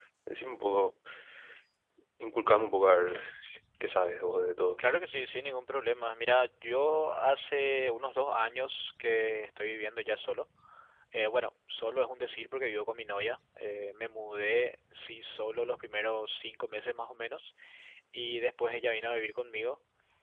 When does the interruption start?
none

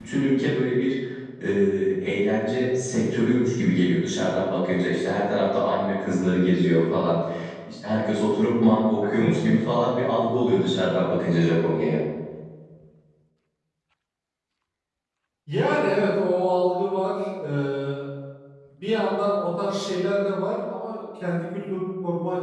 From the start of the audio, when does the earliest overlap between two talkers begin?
none

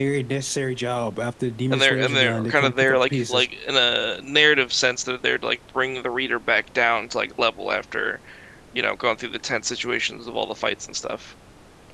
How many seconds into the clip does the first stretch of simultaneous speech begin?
1.7 s

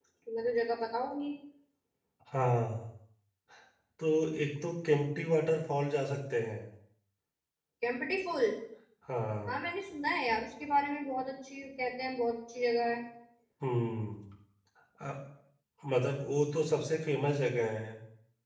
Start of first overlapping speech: none

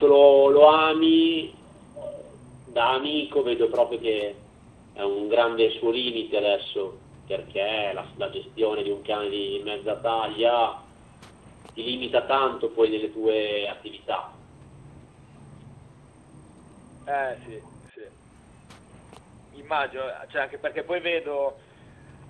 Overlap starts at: none

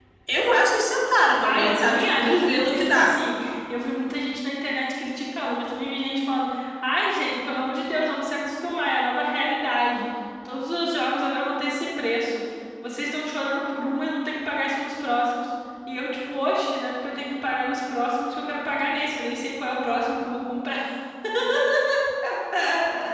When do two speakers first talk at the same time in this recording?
1.4 s

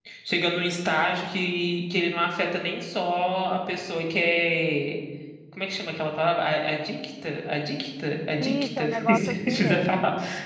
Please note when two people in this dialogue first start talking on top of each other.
8.4 s

